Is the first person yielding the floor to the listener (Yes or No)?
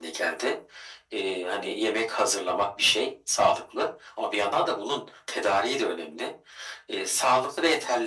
No